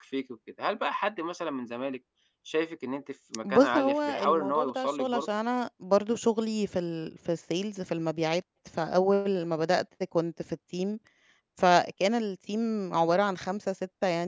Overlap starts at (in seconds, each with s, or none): 3.4 s